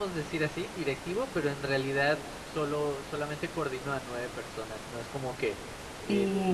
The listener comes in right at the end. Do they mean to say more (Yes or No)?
No